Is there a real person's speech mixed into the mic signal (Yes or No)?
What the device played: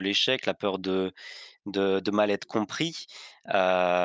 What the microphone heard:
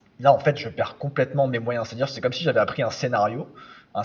Yes